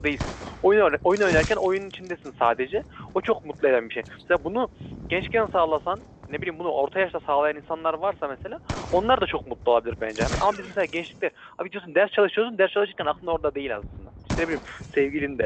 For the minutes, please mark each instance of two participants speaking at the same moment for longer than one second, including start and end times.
none

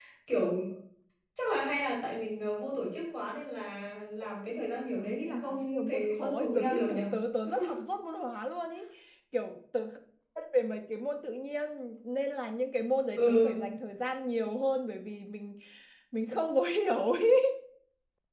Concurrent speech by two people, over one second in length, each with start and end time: 5.0-7.0

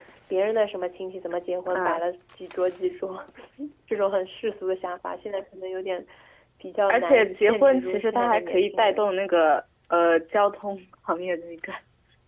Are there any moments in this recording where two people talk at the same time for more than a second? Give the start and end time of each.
6.9-9.1

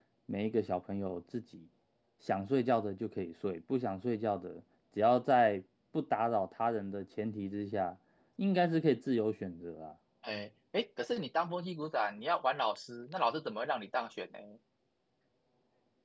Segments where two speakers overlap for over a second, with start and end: none

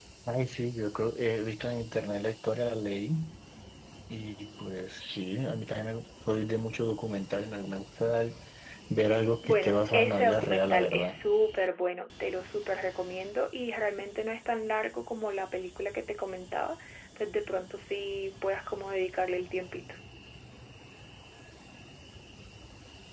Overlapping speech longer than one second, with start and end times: 9.4-11.2

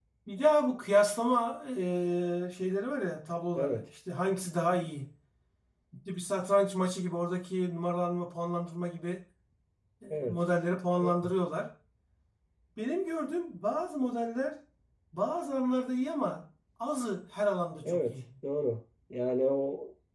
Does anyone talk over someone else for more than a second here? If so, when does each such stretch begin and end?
none

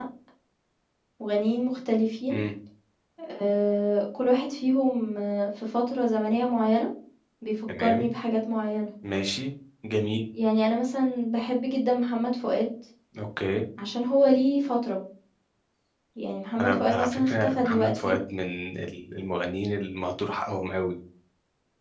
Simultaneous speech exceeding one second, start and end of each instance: 16.6-18.1

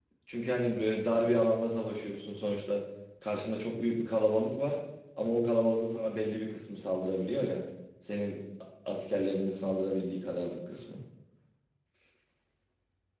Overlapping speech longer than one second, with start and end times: none

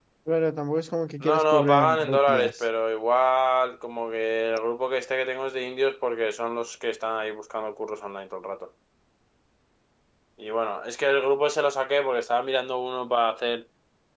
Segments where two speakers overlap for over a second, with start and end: 1.2-2.6

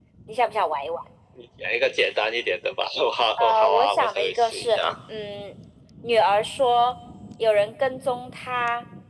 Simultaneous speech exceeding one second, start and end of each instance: 3.4-4.9

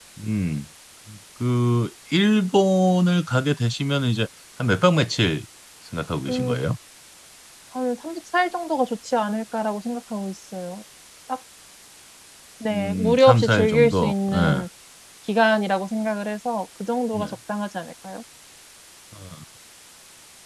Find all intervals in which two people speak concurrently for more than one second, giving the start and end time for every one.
12.7-14.6

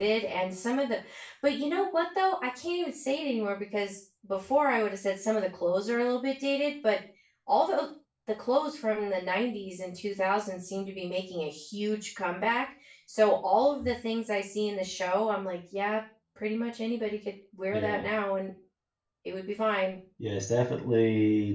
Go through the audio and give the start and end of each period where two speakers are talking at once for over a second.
none

